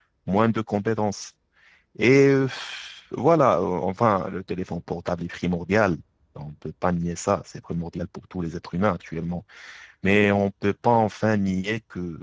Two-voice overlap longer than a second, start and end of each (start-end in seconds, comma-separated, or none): none